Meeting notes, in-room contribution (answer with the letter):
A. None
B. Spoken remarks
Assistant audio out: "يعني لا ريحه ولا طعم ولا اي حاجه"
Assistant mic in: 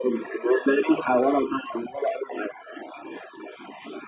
A